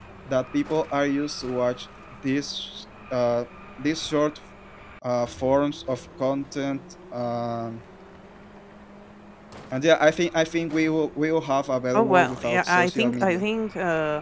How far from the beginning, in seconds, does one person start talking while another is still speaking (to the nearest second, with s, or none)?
12 s